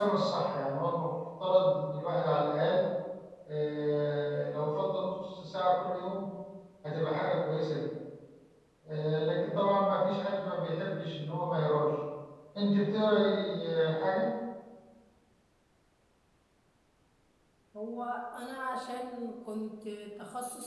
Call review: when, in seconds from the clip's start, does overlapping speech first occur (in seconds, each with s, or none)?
none